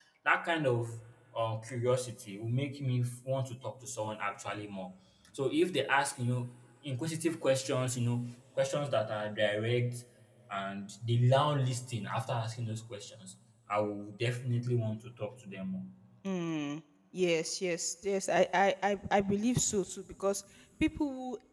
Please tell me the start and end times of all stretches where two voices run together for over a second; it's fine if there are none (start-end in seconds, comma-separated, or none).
none